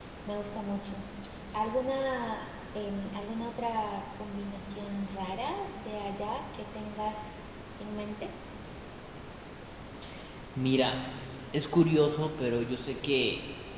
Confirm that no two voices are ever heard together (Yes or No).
Yes